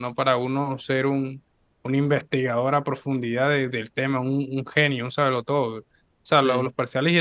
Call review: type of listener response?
listening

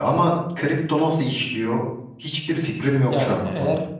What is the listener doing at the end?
taking over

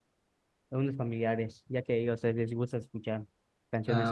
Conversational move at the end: taking over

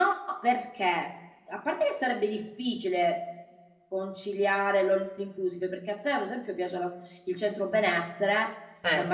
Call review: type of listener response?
listening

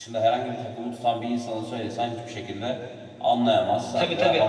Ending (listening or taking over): taking over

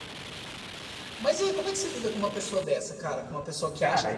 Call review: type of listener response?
taking over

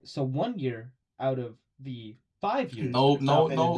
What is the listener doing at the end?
taking over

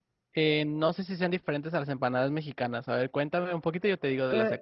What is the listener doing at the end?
taking over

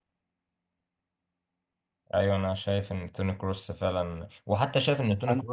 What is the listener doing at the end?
listening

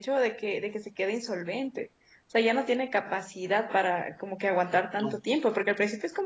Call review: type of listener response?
listening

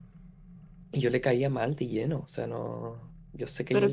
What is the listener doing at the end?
taking over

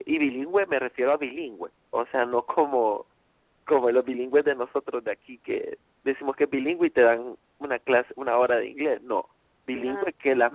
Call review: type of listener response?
listening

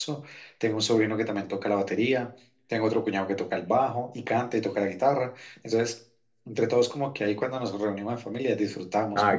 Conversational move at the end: taking over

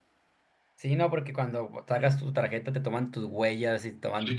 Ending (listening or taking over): taking over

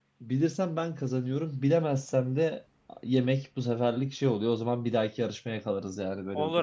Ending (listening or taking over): taking over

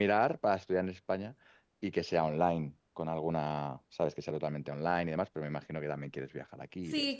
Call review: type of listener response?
taking over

